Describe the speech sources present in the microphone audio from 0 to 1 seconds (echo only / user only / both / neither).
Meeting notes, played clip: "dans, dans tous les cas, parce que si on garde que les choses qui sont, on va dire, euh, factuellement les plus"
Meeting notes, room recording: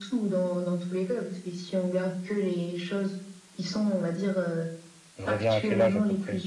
echo only